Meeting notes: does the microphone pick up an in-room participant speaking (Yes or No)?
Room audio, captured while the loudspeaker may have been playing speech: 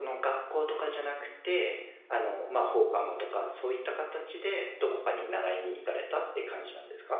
Yes